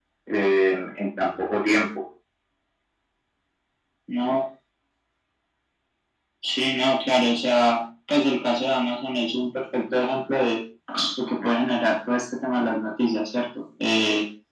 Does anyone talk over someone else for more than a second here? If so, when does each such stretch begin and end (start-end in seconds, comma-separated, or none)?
none